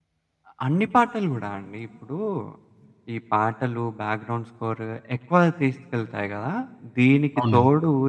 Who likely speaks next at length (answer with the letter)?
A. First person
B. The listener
A